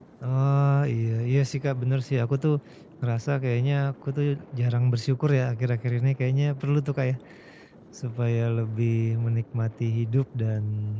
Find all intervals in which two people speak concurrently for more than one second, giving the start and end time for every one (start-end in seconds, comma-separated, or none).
none